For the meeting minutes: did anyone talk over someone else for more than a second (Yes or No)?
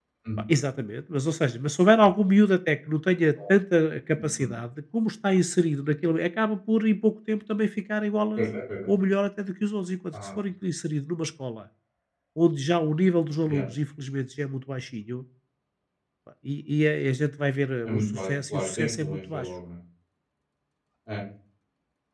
Yes